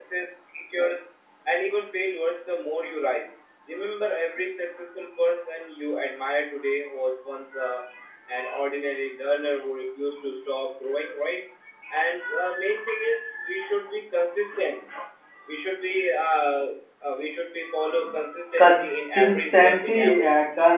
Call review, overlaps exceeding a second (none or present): present